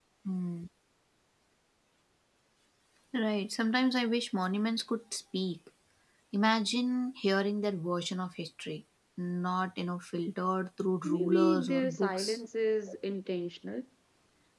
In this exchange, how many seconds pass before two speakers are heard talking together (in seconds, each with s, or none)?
11.0 s